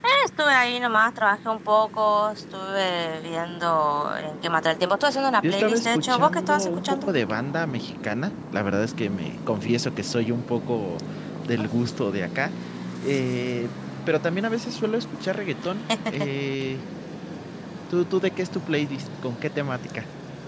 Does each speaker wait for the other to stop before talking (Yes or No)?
No